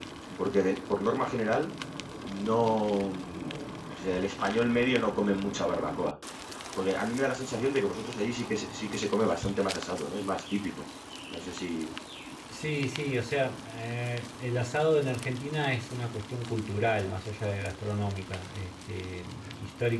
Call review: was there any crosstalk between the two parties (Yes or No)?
No